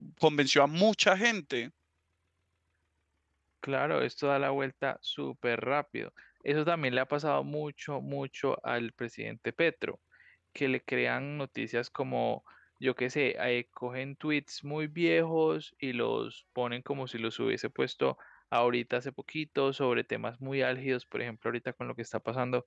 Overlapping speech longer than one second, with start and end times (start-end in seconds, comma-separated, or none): none